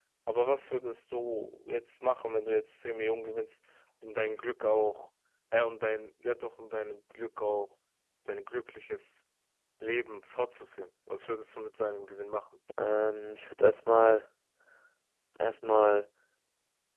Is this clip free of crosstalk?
Yes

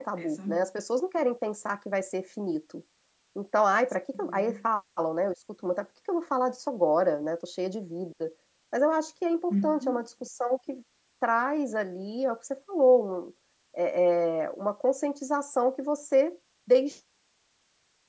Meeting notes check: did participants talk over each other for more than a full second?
No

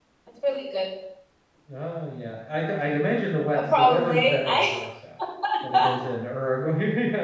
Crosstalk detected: Yes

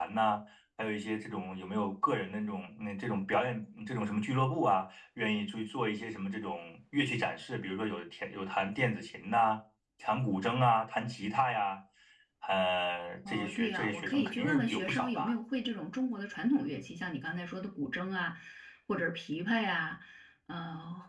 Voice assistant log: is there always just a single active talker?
No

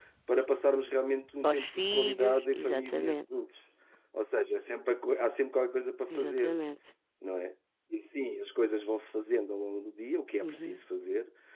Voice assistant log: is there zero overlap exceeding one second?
No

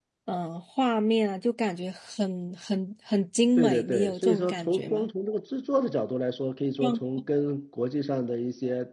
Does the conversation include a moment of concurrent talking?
Yes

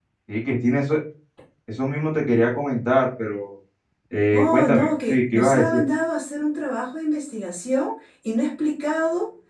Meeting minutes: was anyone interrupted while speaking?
Yes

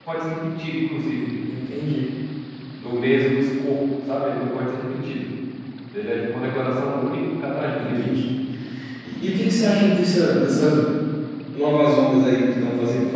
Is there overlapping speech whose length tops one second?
No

